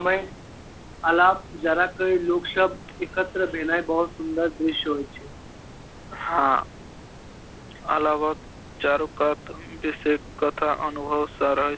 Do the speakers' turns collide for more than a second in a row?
No

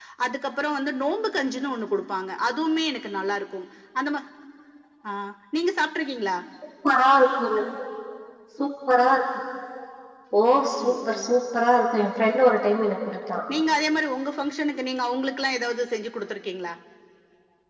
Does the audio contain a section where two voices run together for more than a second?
No

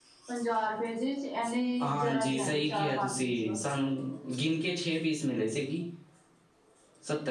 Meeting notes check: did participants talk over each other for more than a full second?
Yes, from 1.8 s

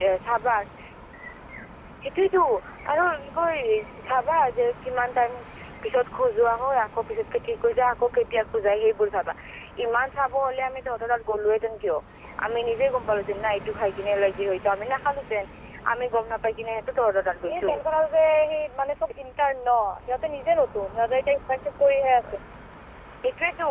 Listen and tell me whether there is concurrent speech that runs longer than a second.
No

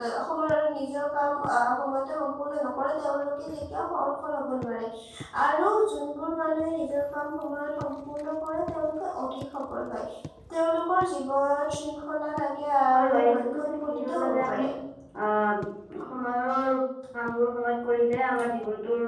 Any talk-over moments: Yes, from 12.9 s

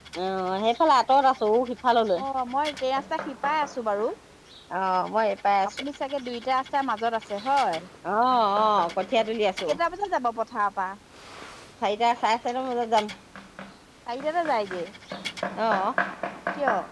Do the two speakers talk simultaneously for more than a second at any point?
No

